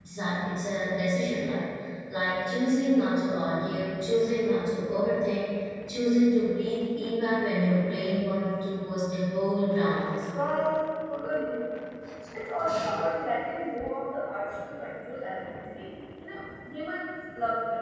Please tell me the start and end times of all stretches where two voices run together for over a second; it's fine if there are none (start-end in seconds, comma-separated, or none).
none